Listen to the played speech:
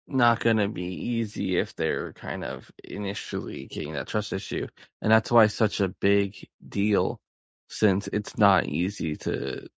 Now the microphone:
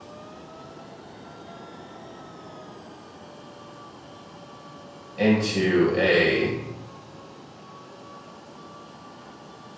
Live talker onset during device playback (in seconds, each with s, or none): 5.2 s